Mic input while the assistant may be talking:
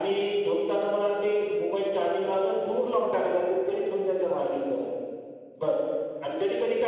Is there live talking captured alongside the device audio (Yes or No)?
No